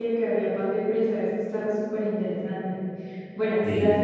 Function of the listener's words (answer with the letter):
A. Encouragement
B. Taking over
A